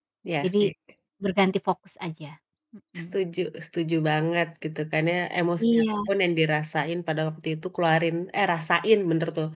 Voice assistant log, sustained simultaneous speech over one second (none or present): none